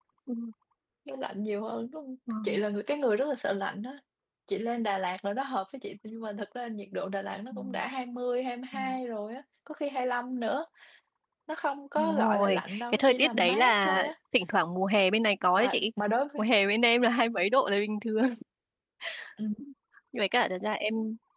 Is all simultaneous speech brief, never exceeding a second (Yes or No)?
No